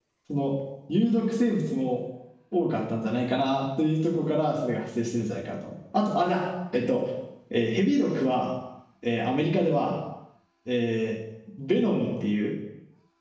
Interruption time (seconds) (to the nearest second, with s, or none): none